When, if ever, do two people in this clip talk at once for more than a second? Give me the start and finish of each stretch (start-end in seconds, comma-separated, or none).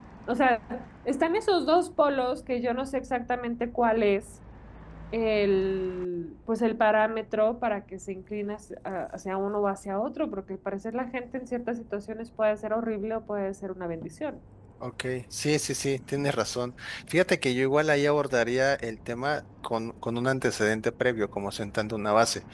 none